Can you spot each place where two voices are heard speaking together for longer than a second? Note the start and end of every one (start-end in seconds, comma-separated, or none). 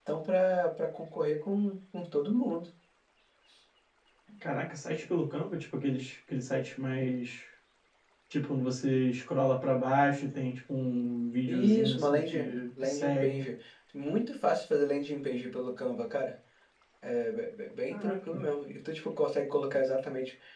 11.5-13.4